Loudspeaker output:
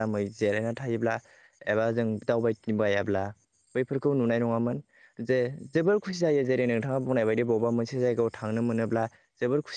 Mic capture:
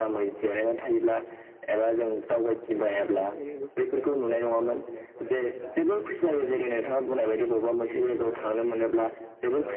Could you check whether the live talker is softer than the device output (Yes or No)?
Yes